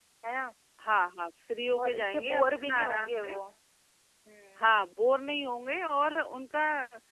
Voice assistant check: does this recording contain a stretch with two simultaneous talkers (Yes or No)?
Yes